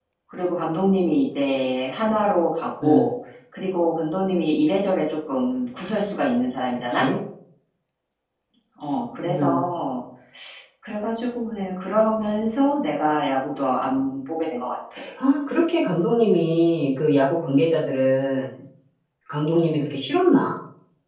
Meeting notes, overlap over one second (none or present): none